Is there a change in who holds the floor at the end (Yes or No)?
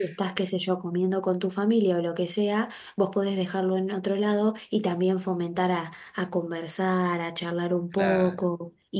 No